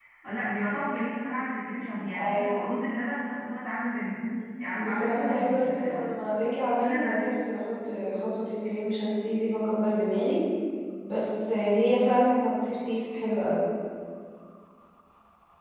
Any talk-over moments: Yes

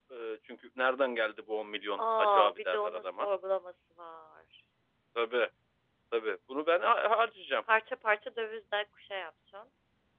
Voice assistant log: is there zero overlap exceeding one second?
No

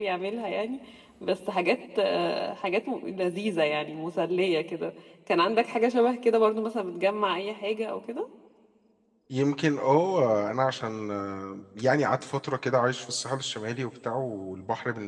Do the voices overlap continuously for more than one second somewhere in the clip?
No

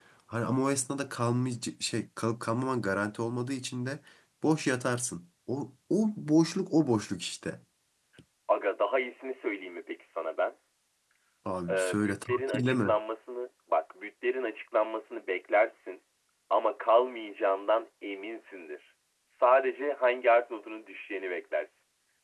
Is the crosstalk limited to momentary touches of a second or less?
No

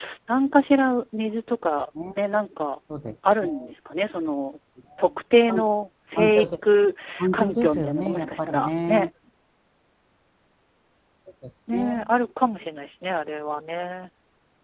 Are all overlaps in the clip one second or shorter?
No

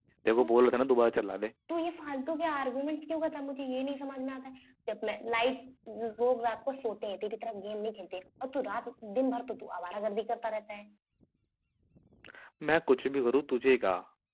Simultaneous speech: No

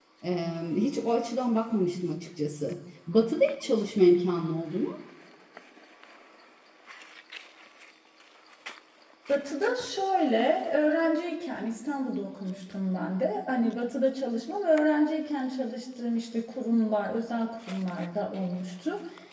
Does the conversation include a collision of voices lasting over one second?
No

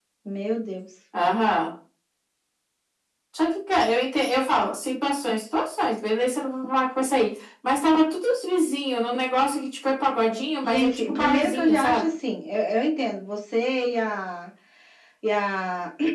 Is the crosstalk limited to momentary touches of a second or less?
No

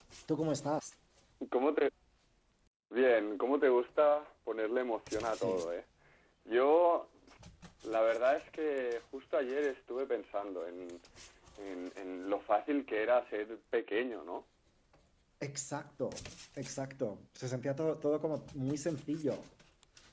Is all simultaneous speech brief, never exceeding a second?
Yes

